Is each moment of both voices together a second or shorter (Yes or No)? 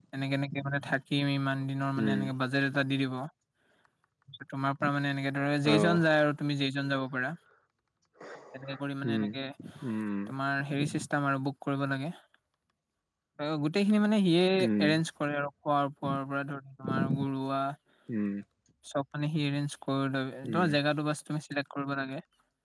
Yes